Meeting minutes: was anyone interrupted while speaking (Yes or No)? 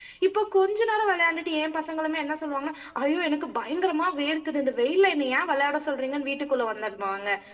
No